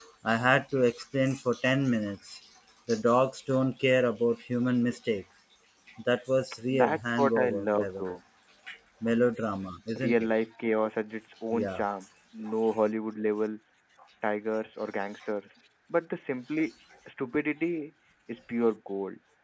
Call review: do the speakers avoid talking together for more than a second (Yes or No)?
No